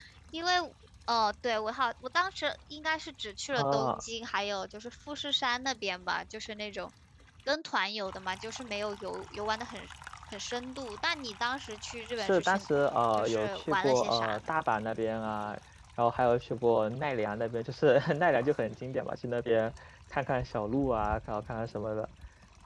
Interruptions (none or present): present